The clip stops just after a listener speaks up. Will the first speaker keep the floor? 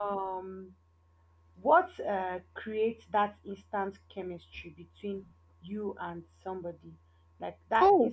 Yes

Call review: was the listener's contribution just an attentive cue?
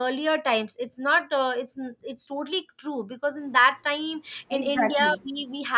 Yes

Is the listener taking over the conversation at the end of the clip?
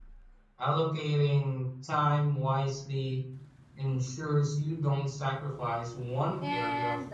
Yes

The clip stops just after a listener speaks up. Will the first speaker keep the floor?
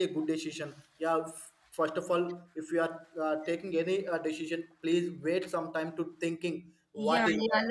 No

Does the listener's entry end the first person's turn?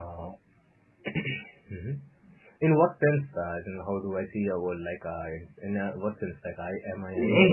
Yes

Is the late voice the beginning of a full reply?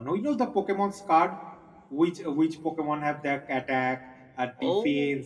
No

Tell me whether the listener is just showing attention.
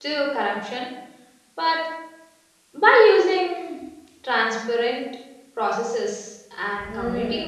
No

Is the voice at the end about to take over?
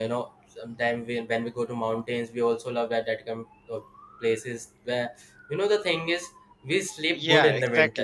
Yes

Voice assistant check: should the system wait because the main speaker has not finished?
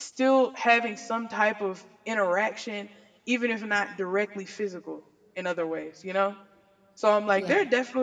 Yes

